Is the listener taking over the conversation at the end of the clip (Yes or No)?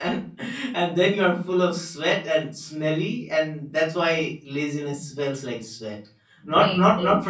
No